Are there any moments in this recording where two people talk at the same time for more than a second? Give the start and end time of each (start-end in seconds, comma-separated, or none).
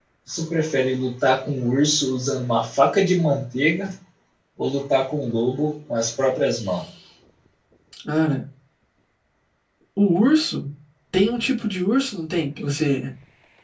none